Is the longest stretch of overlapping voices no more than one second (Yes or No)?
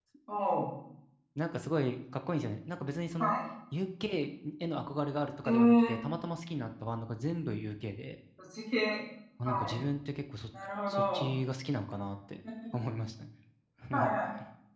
Yes